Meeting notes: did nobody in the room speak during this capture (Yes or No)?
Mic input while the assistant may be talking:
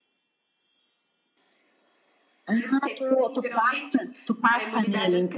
No